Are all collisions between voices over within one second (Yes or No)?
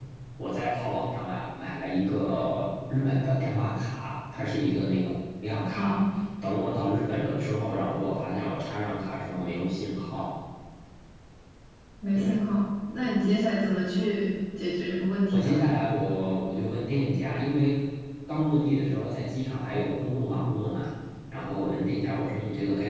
Yes